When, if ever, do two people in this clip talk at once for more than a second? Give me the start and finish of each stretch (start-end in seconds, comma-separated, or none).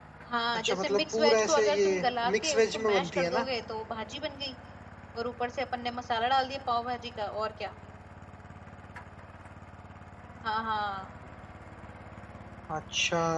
0.5-3.4